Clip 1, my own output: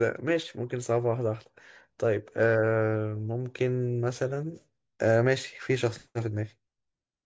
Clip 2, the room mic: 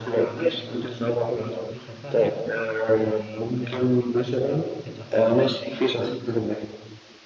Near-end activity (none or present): present